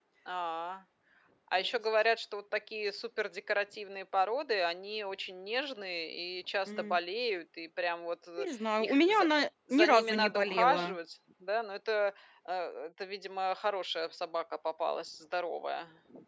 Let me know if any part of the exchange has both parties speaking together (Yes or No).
Yes